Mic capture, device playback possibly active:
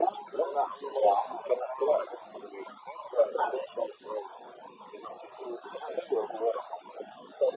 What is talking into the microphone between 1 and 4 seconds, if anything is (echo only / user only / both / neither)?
echo only